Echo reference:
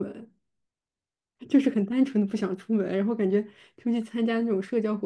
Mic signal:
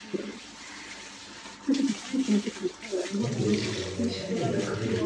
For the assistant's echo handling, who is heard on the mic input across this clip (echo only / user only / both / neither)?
both